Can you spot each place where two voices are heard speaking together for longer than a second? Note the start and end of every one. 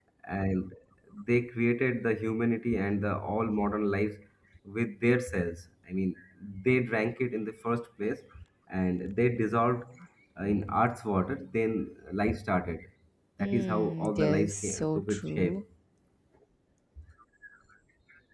13.4-15.6

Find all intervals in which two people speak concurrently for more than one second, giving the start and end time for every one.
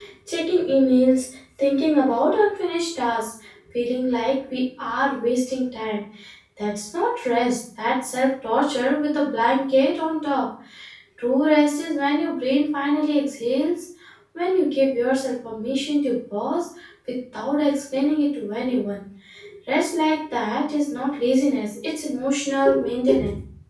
none

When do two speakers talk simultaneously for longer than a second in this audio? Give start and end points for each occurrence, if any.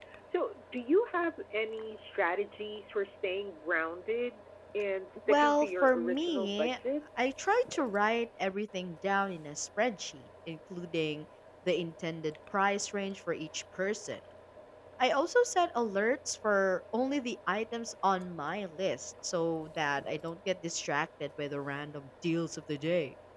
5.3-6.8

